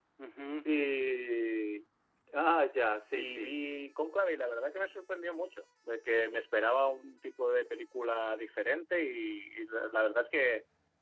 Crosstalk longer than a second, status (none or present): none